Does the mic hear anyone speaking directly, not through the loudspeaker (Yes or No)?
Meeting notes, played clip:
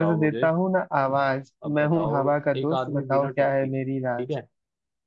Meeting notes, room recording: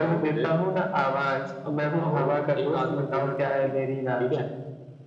No